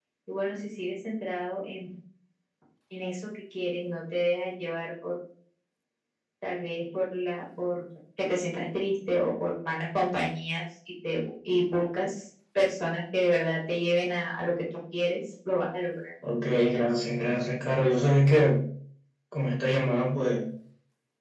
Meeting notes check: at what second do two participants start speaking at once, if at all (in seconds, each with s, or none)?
none